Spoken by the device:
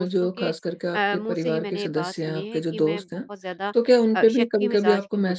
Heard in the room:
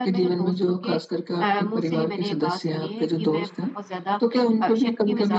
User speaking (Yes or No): No